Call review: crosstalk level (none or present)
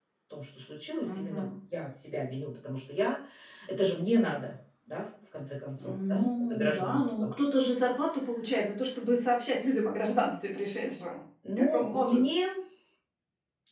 present